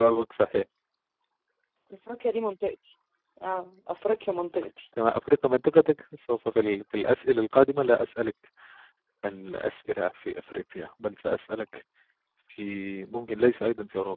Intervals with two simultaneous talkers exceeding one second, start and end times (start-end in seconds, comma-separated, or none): none